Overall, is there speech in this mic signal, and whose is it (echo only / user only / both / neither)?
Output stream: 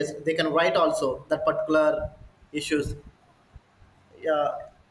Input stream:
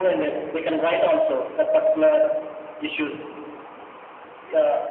echo only